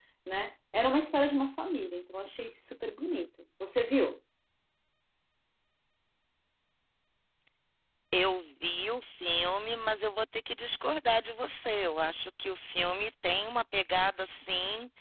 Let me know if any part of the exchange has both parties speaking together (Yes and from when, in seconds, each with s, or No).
No